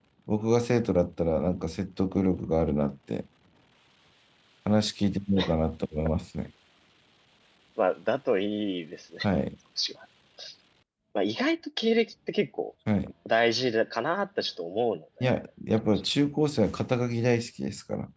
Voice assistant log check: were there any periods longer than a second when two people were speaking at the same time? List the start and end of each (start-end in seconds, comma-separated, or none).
none